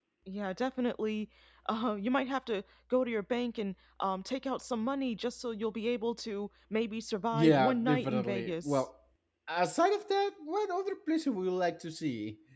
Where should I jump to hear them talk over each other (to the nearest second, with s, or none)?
7 s